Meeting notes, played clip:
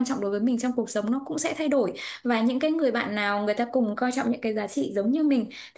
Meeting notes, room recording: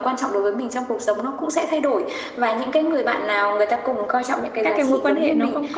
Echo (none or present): present